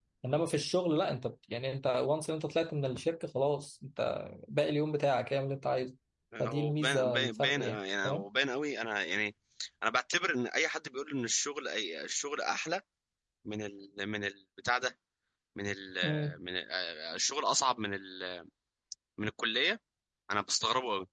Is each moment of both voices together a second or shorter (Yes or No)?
No